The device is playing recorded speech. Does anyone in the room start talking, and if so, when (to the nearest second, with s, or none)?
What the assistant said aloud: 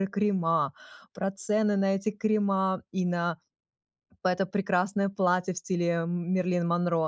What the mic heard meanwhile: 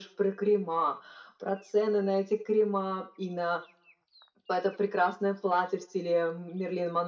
none